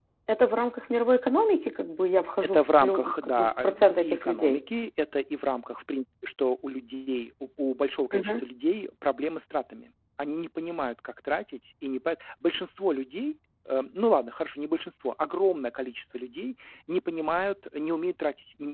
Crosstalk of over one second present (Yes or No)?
Yes